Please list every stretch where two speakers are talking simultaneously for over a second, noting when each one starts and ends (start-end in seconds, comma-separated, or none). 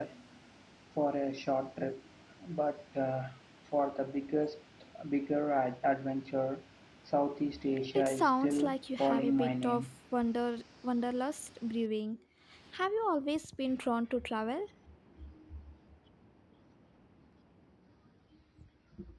8.0-9.9